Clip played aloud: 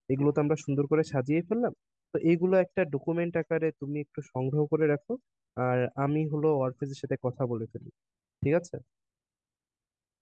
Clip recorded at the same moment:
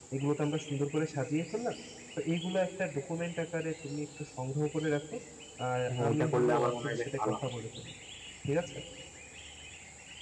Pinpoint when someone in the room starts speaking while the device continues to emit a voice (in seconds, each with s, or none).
5.9 s